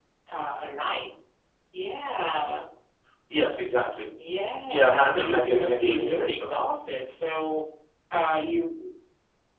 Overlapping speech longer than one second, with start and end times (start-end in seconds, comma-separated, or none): 4.7-6.5